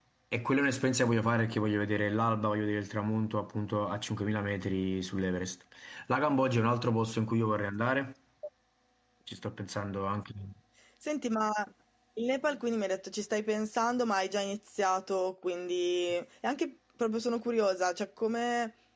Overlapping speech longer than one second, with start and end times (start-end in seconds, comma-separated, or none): none